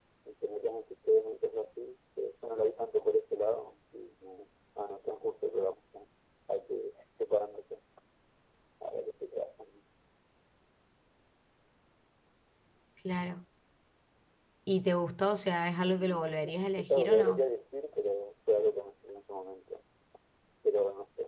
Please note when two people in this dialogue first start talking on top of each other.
15.9 s

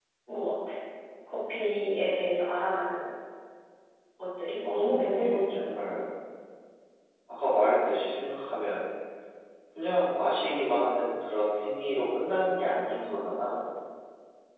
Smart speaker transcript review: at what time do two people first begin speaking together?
4.7 s

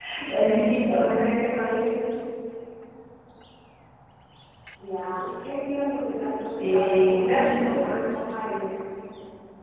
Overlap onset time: 6.6 s

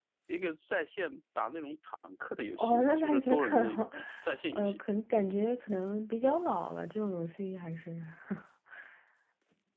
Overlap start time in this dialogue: 2.6 s

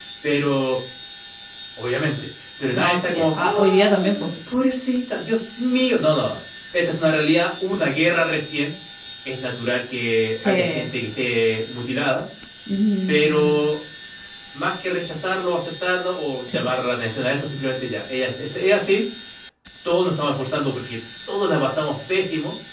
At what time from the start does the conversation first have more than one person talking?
2.7 s

